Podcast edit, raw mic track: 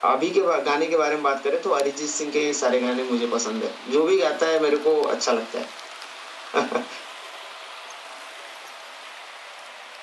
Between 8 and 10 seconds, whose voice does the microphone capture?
neither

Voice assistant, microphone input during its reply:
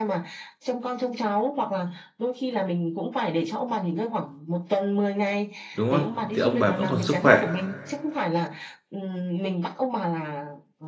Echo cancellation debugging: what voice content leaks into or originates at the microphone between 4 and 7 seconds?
both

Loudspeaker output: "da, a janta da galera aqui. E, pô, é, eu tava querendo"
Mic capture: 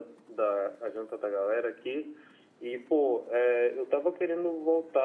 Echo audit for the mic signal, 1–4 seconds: echo only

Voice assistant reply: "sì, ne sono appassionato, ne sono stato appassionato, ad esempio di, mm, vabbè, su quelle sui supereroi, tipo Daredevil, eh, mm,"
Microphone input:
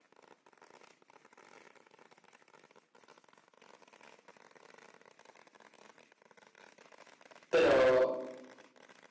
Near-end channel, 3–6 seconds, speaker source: neither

